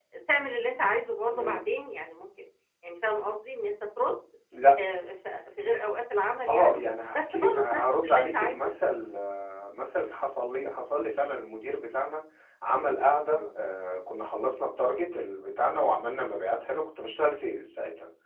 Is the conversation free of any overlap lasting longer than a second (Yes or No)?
No